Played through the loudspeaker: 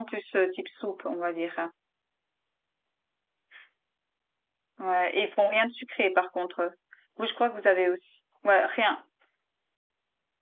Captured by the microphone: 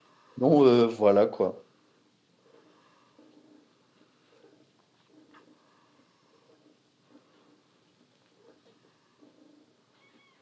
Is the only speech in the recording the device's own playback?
No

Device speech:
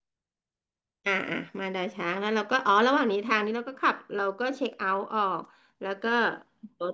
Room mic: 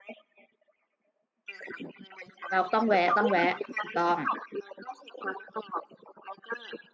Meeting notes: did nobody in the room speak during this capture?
No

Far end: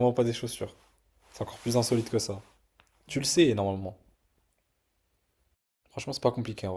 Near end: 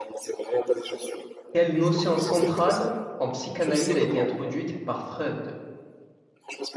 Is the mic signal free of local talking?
No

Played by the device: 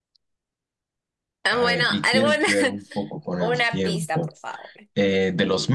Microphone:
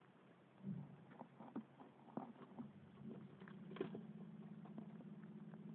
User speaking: No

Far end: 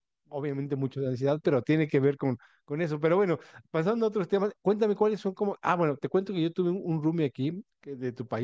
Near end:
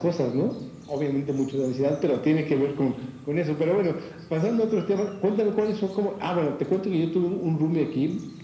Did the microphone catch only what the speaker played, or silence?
Yes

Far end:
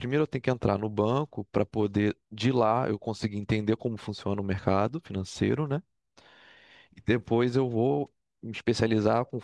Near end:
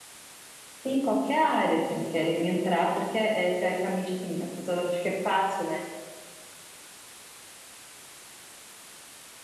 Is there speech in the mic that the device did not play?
Yes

